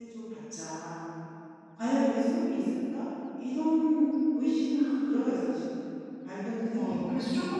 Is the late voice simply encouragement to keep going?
No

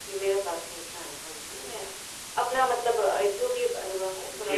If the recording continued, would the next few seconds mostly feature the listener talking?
Yes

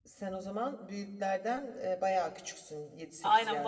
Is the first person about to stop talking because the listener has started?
Yes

